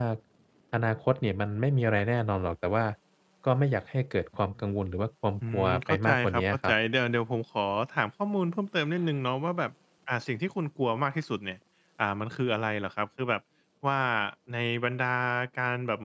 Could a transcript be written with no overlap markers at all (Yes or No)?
No